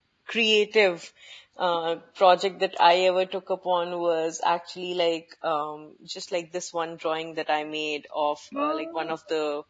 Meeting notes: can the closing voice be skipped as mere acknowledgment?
Yes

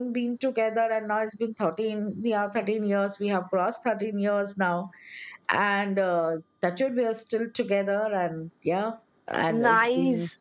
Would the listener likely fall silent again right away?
No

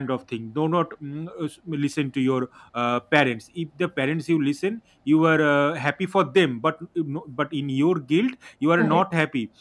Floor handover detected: No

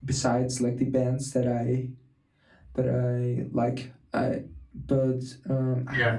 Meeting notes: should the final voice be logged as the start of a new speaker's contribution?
Yes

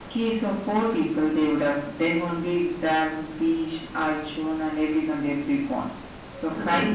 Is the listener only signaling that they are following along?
Yes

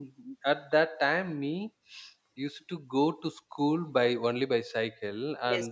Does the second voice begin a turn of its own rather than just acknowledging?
No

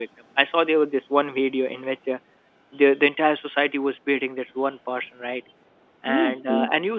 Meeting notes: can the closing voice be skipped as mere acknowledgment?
Yes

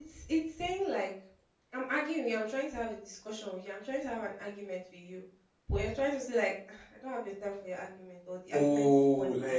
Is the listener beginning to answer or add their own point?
Yes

